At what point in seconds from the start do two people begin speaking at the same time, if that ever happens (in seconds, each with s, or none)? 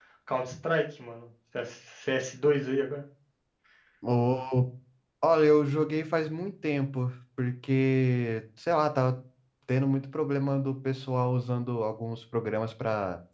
none